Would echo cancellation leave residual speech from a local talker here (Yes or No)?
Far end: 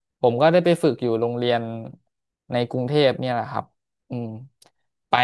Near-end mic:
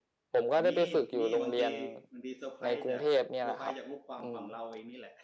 Yes